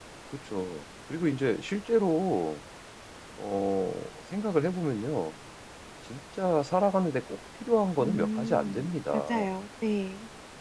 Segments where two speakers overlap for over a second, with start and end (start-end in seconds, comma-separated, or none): 8.0-9.2